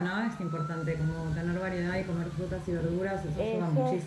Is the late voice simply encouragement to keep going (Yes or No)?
No